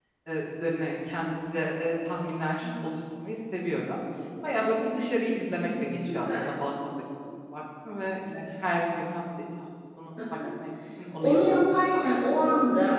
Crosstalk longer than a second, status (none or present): present